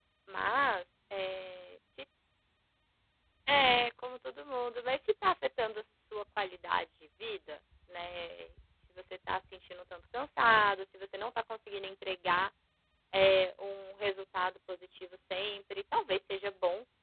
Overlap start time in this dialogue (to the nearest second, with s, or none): none